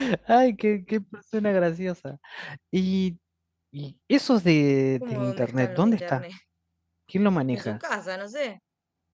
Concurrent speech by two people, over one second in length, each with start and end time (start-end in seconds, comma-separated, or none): 5.0-6.2